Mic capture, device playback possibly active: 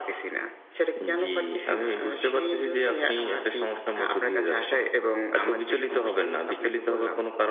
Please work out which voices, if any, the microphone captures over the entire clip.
echo only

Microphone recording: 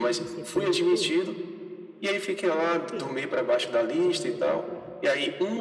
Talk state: both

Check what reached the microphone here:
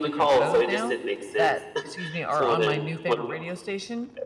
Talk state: both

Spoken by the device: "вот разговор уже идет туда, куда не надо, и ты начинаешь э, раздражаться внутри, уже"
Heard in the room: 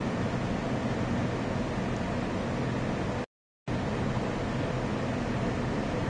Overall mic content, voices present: neither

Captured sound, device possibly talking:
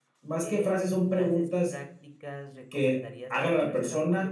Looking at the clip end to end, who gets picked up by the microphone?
both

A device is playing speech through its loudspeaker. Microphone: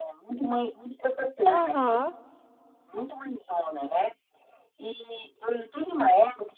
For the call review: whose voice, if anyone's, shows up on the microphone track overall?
both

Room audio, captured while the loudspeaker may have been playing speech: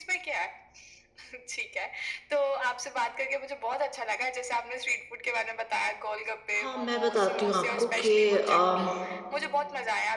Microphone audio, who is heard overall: both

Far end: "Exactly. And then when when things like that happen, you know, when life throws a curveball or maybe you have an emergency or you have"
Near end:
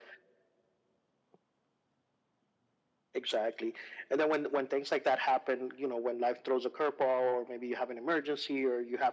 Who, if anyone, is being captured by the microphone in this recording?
echo only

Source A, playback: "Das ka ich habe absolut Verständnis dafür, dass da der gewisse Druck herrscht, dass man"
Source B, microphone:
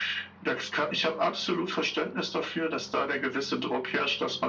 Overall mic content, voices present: echo only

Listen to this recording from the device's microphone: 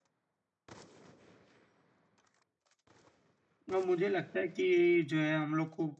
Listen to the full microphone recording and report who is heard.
user only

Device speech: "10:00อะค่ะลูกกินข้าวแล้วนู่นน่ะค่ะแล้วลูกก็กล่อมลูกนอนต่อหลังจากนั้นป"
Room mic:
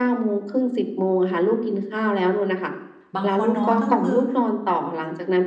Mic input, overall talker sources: both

